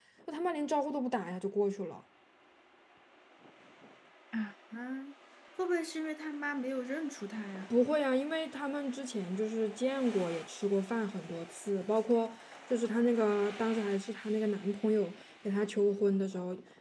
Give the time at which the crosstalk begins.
none

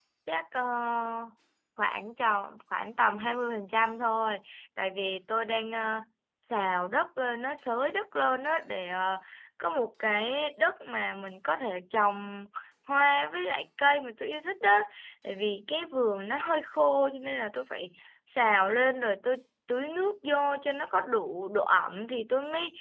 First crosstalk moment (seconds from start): none

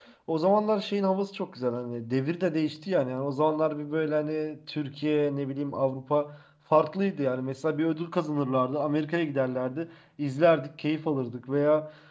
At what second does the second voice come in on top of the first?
none

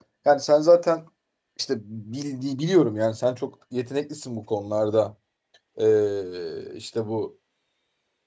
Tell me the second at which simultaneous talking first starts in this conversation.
none

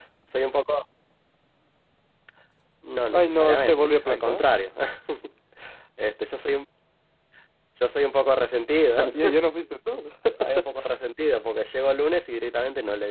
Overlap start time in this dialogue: 3.1 s

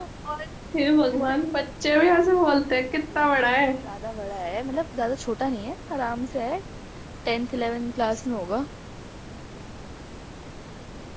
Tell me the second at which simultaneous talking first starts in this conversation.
none

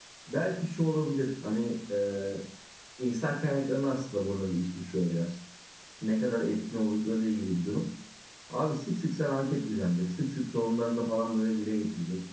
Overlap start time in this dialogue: none

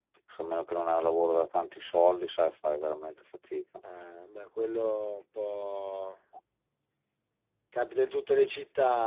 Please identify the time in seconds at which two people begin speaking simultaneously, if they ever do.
none

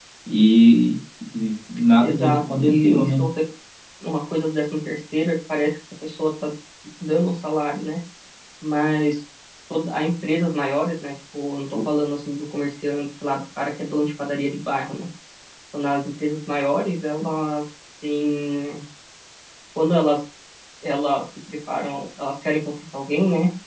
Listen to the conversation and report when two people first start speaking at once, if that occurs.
2.0 s

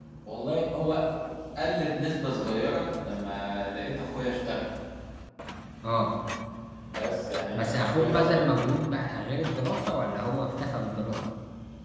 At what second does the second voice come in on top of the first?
7.5 s

